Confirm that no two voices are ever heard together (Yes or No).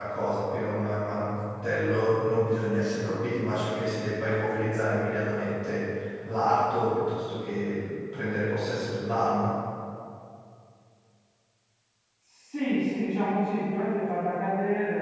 Yes